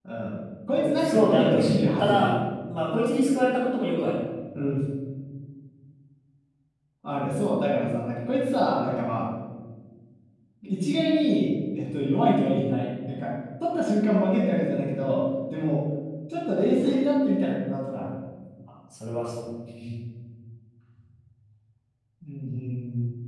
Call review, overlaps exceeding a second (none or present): present